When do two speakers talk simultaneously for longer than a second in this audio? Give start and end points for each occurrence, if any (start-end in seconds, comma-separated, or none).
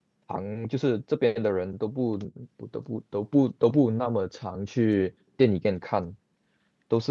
none